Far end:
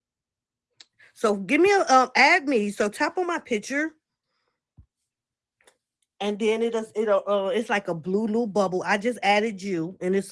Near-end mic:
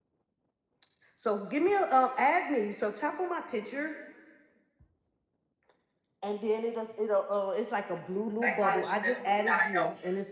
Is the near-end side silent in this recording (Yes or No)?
No